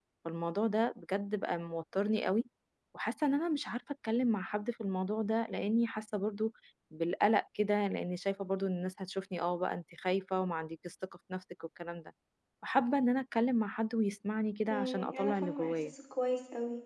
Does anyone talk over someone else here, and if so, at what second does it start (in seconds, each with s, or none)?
14.7 s